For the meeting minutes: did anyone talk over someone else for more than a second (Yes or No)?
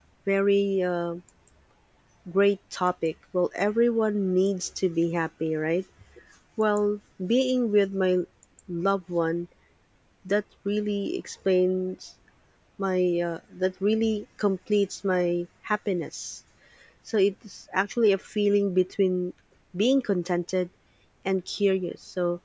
No